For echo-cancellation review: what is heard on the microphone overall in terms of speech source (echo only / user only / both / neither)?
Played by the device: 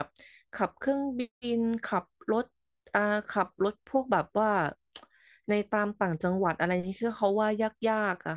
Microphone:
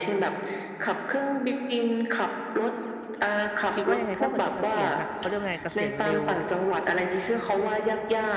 both